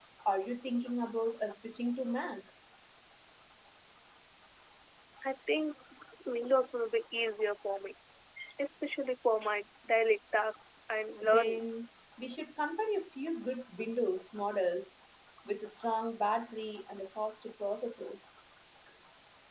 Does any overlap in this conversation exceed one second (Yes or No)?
No